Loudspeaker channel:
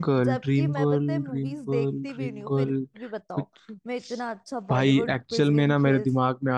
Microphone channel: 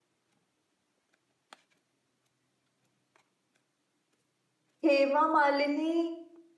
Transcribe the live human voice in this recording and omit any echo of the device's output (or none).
हेमा मालिनी